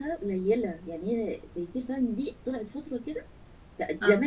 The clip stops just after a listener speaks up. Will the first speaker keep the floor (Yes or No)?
Yes